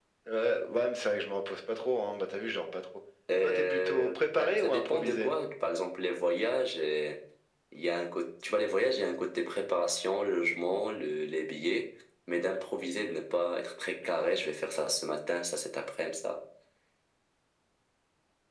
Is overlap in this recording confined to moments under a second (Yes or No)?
No